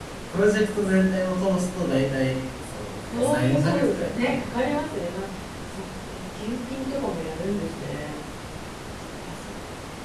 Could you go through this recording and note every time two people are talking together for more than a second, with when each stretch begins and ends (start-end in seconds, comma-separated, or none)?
3.1-4.8